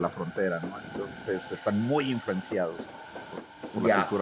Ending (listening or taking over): taking over